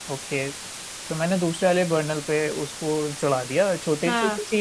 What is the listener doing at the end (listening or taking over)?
listening